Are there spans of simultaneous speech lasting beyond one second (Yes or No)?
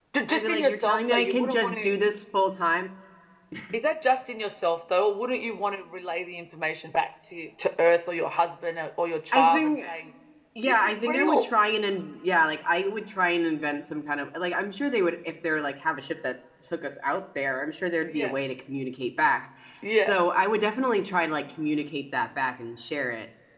Yes